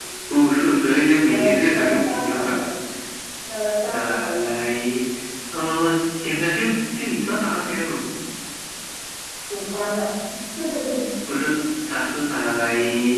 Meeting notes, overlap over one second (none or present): present